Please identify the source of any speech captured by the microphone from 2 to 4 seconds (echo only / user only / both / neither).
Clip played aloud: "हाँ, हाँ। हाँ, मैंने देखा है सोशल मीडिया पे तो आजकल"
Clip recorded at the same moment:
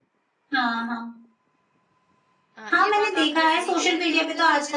both